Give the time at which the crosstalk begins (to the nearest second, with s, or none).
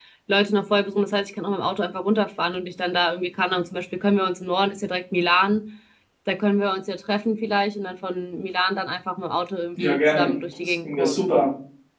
10 s